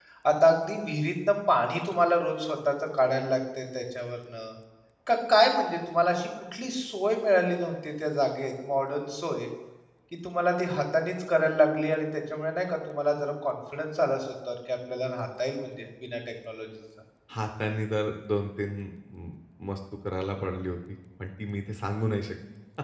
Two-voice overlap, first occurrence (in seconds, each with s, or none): none